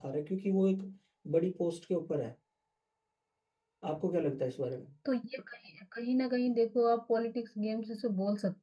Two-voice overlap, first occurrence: none

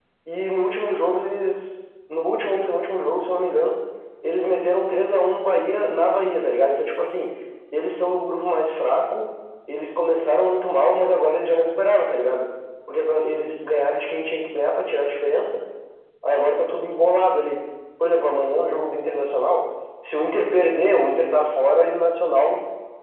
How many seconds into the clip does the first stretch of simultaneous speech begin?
none

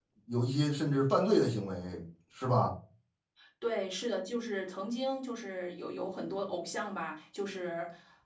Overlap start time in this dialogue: none

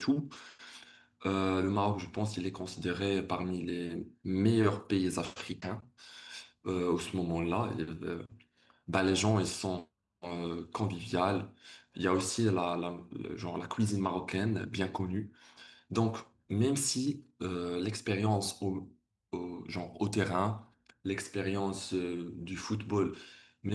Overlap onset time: none

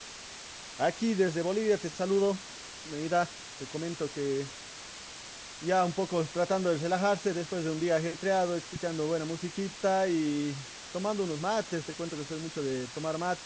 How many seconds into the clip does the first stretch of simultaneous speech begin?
none

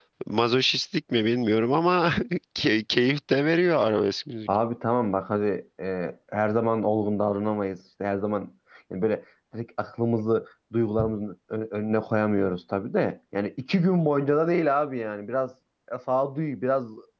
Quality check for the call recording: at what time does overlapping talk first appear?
none

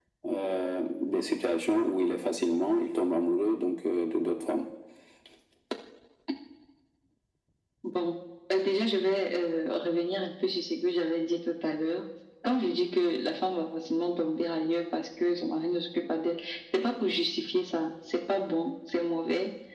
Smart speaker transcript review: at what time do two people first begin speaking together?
none

